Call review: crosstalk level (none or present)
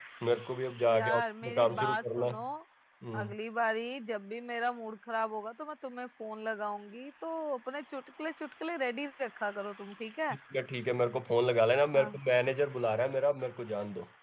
present